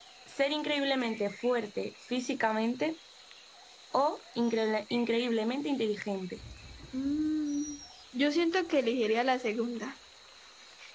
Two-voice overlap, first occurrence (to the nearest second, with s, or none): none